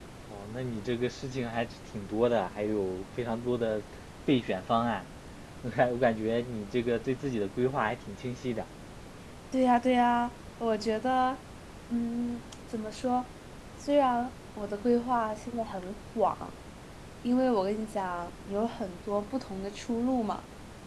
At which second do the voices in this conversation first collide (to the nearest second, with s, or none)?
none